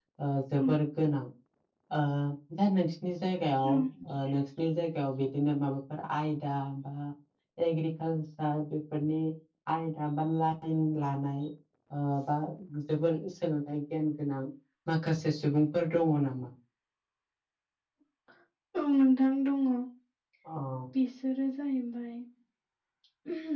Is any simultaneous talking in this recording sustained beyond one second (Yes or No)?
No